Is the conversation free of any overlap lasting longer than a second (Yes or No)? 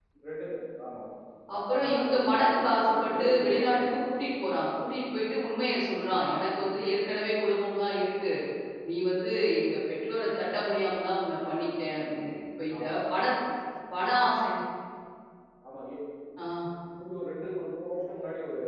No